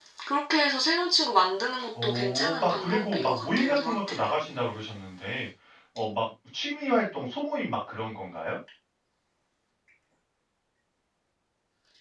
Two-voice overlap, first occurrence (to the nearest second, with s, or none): 2 s